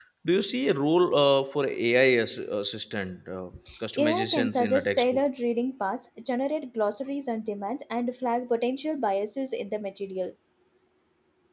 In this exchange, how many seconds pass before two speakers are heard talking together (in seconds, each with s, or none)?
4.0 s